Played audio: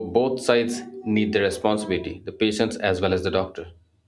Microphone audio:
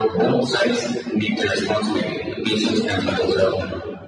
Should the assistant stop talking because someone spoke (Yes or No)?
No